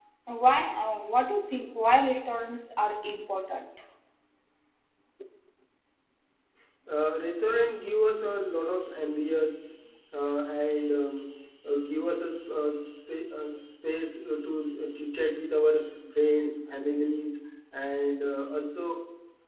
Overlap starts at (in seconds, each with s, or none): none